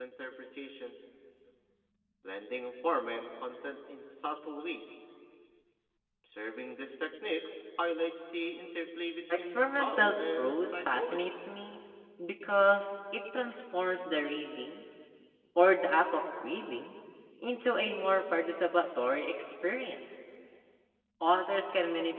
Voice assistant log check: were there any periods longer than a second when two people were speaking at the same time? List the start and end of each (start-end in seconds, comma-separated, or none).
9.3-11.3